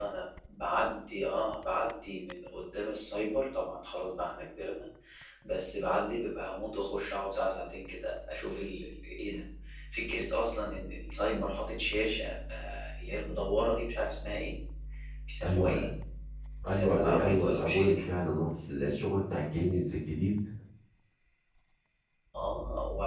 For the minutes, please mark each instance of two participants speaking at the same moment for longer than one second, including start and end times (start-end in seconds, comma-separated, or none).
16.7-18.0